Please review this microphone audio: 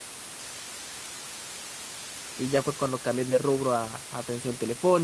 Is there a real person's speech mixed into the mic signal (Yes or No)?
Yes